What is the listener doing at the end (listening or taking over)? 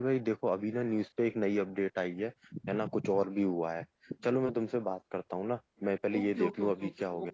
taking over